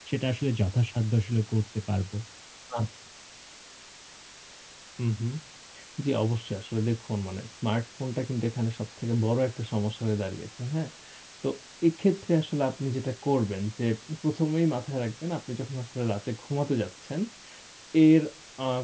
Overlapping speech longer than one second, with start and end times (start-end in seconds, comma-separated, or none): none